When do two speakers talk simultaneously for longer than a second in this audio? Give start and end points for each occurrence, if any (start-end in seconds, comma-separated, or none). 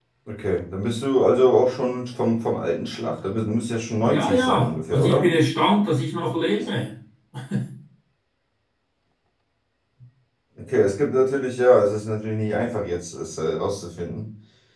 4.0-5.3